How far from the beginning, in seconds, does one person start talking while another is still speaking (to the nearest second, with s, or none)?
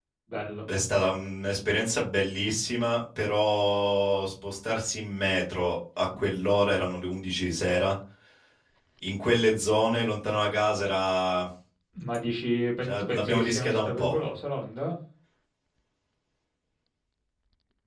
13 s